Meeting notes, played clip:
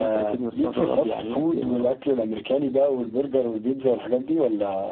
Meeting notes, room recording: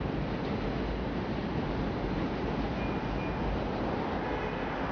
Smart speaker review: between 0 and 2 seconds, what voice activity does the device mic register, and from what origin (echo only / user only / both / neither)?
neither